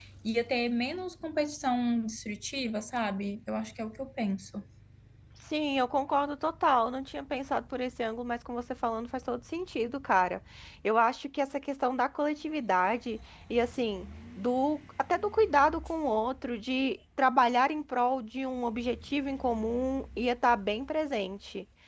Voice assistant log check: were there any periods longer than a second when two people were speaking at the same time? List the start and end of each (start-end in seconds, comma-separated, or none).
none